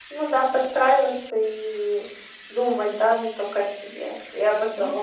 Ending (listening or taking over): taking over